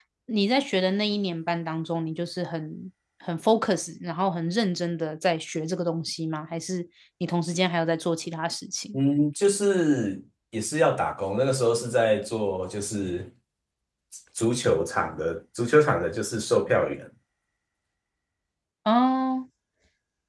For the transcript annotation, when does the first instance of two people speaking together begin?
none

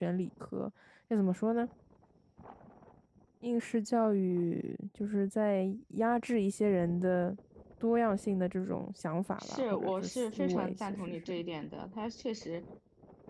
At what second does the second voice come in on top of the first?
9.4 s

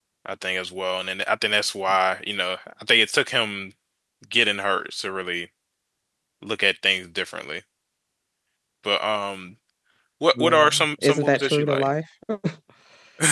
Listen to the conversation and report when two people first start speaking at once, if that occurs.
10.3 s

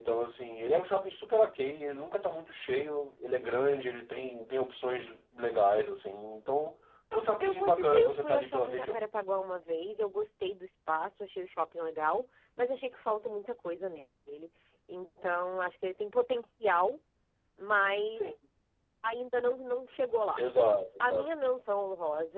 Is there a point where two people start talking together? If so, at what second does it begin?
7.4 s

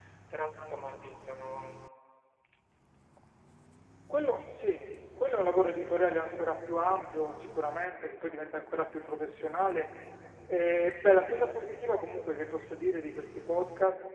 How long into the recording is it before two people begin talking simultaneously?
none

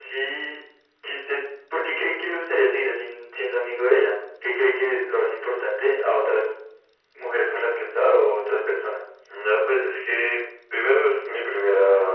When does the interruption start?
none

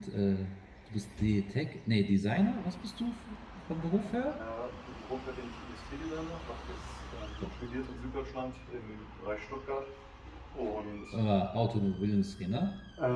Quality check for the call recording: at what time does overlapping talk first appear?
none

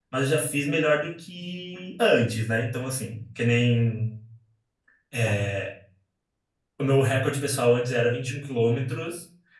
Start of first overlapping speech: none

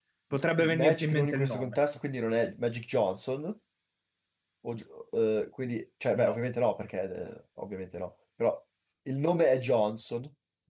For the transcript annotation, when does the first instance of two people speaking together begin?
0.6 s

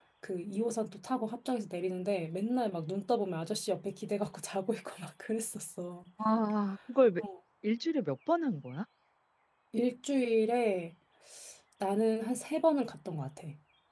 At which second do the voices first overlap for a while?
none

